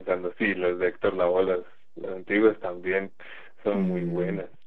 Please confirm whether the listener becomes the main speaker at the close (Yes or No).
Yes